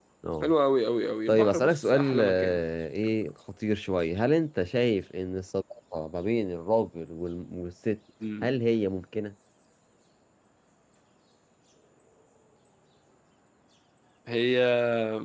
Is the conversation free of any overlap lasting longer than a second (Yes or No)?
No